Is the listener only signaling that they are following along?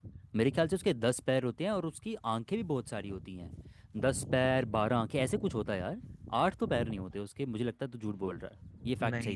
No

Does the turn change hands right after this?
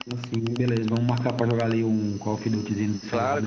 Yes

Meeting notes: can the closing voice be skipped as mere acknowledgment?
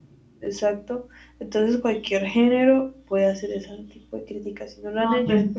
Yes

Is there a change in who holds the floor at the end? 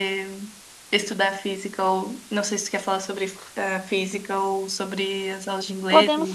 Yes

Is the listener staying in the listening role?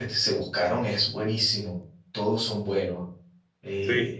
Yes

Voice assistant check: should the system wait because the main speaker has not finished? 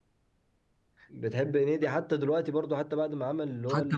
No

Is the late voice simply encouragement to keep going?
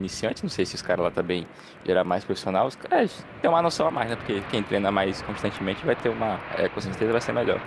Yes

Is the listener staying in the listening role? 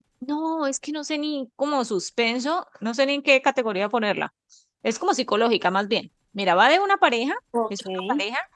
Yes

